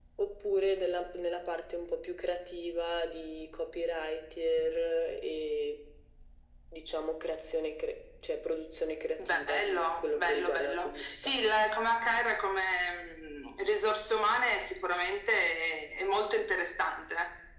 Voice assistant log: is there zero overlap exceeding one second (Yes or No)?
No